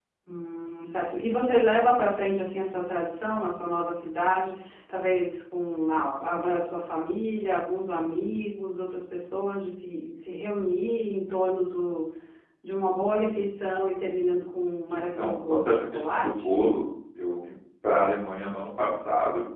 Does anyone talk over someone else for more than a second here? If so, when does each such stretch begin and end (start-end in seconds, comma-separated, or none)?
14.9-16.6